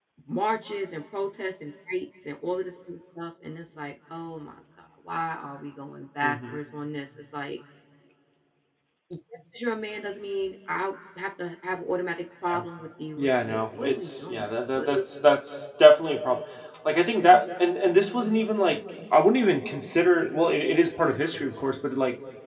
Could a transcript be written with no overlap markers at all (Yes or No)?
No